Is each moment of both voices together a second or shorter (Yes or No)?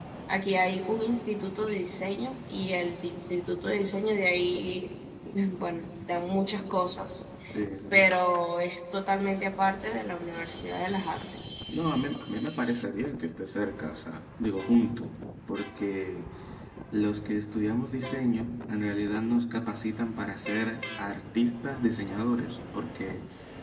Yes